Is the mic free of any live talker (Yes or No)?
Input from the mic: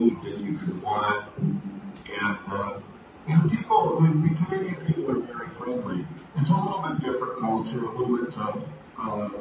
Yes